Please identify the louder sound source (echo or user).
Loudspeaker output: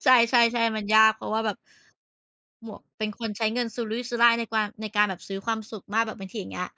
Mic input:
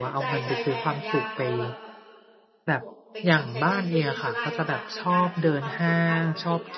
user